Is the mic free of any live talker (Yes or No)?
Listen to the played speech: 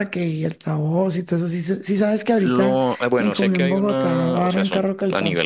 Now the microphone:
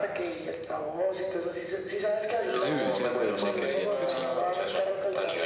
No